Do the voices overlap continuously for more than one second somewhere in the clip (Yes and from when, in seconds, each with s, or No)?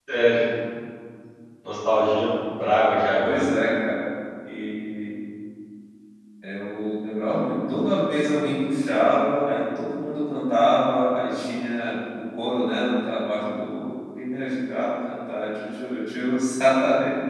No